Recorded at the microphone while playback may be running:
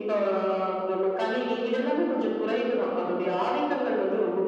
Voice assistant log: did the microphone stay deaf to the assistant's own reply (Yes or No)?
No